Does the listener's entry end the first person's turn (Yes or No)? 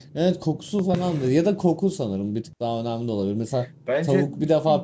No